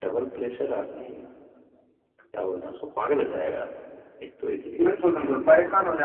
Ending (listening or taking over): taking over